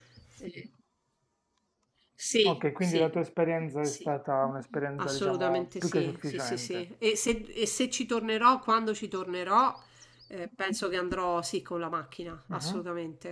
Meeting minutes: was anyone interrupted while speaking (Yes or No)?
Yes